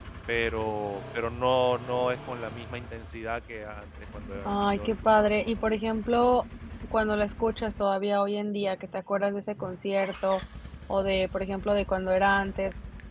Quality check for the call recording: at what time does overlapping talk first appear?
4 s

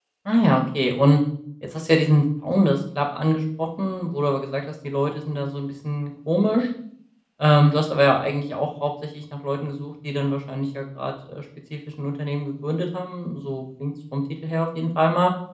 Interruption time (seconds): none

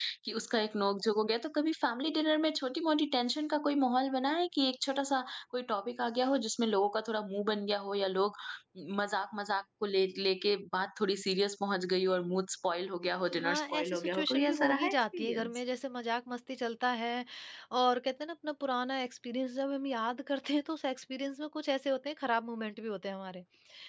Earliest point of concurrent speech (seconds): 13 s

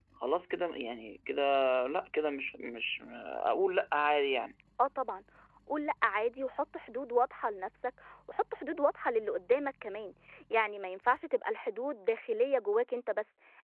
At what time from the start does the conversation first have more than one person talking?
none

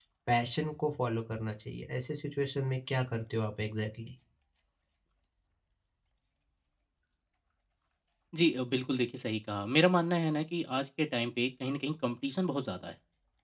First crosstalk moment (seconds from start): none

